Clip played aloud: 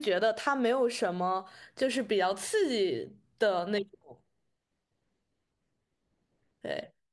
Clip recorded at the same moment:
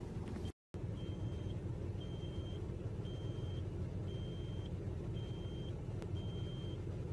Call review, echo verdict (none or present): none